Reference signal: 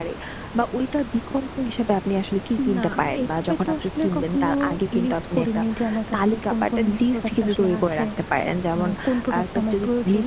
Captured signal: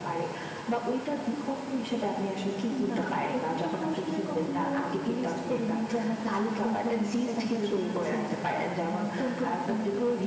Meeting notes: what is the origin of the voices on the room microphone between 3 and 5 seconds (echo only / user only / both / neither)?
echo only